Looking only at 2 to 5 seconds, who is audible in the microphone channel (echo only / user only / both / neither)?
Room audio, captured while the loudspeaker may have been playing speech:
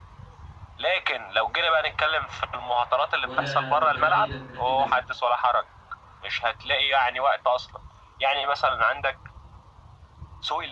both